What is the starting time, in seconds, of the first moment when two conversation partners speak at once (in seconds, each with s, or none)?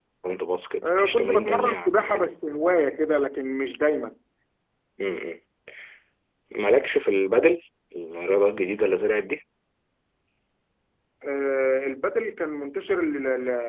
0.8 s